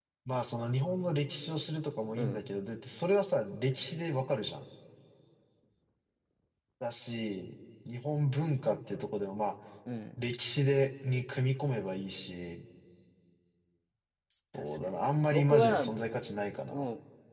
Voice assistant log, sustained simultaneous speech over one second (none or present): present